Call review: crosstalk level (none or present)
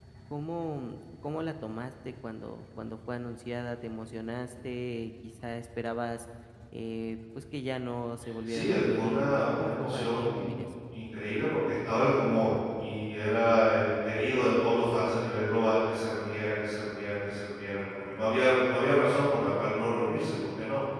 present